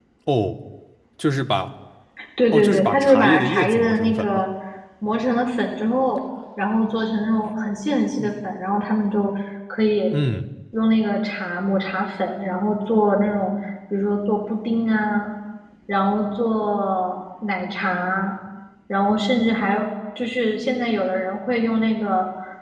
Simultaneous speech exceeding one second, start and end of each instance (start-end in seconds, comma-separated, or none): 2.5-4.4